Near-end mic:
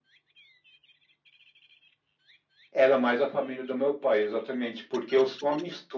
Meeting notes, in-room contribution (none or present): none